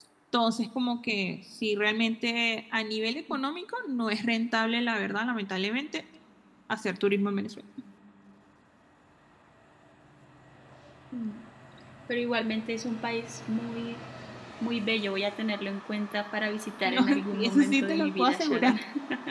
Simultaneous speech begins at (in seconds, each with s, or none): 16.8 s